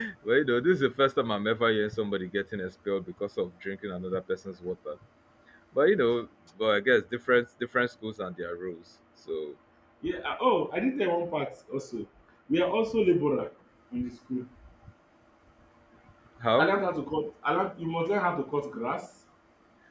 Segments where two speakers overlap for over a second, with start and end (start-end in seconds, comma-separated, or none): none